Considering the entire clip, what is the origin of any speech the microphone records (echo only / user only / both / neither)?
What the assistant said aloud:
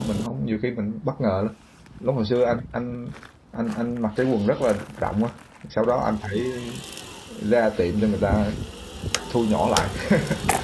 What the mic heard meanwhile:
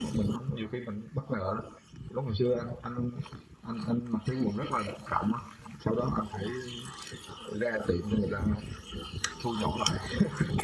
echo only